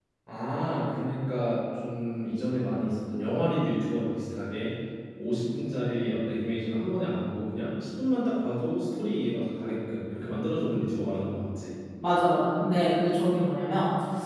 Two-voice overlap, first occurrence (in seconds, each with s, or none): none